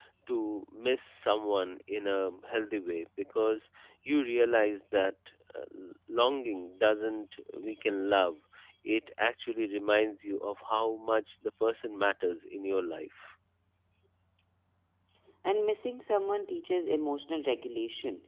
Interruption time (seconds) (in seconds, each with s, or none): none